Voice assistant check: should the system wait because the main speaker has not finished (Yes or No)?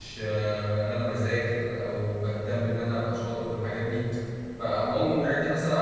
Yes